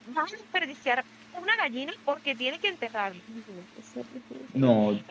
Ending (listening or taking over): listening